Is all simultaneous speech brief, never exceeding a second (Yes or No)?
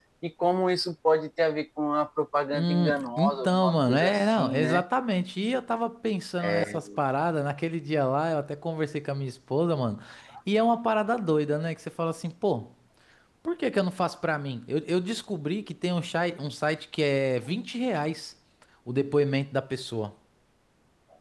No